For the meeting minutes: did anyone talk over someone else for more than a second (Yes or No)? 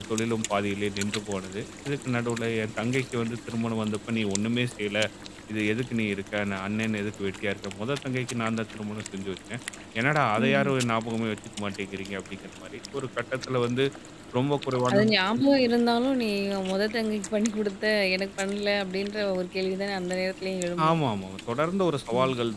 No